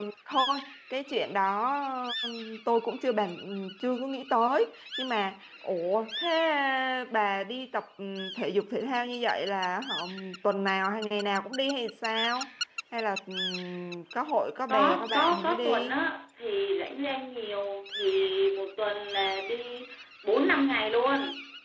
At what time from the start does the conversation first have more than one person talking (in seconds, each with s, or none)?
14.7 s